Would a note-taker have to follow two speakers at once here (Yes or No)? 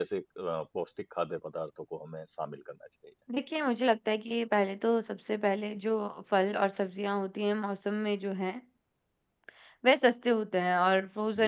No